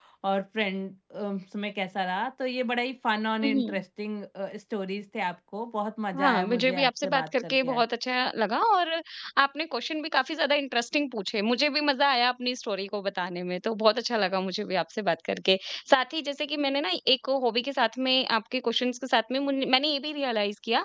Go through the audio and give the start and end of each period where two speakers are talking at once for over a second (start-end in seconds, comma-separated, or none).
6.2-7.8